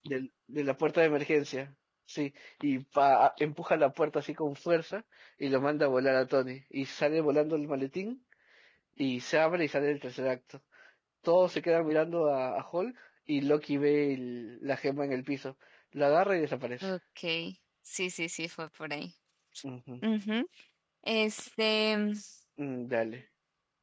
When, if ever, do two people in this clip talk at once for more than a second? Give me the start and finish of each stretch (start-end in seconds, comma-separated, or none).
none